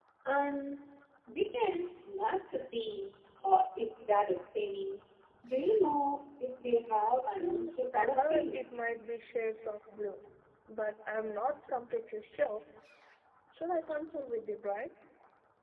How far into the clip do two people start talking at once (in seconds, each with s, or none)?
7.4 s